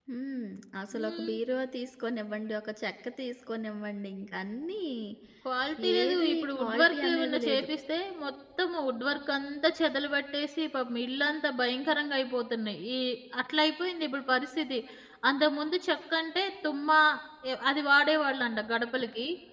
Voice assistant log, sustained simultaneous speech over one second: present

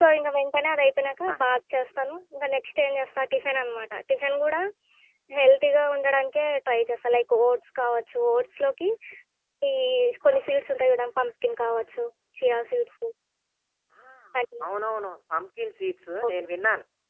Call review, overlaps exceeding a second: none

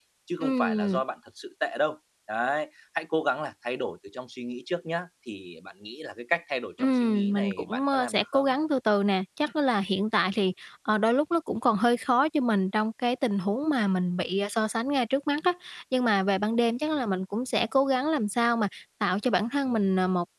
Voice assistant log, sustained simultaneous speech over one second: present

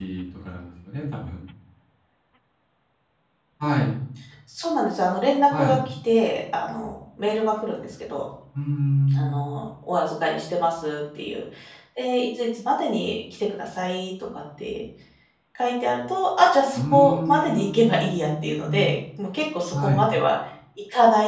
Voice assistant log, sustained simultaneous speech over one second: present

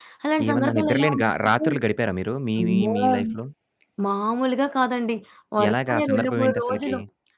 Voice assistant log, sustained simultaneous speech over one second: present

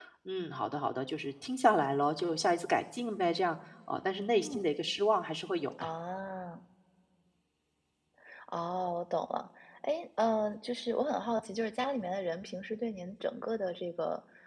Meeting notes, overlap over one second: none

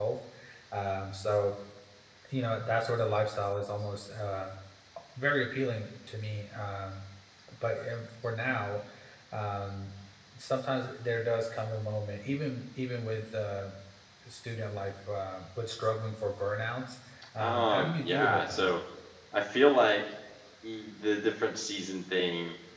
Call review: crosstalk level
present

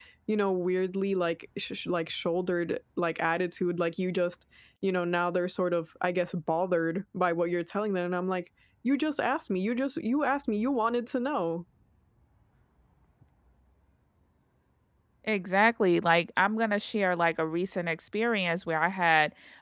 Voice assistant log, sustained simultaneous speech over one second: none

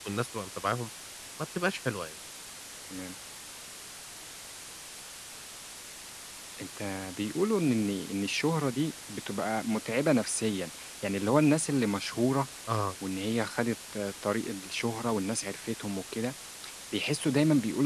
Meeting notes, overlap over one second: none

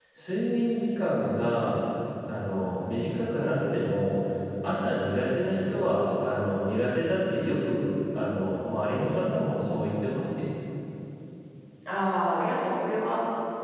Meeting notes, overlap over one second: none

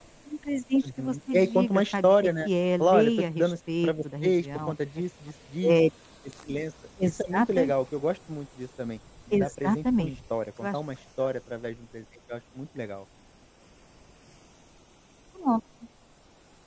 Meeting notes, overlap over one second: present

